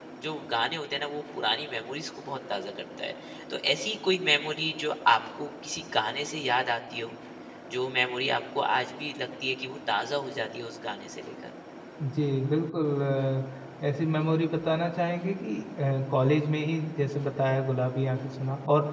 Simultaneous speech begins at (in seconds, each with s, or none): none